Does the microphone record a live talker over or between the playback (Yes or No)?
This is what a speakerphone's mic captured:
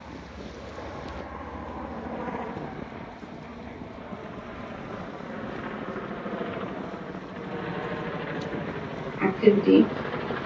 Yes